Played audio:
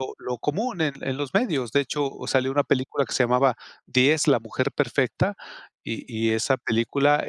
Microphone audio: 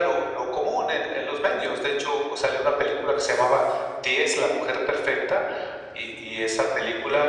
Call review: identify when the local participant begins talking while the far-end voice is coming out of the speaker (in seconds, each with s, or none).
none